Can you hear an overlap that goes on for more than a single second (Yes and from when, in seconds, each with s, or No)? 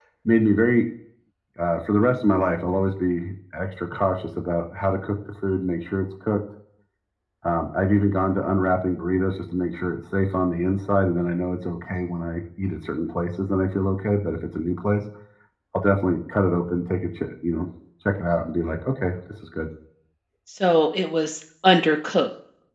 No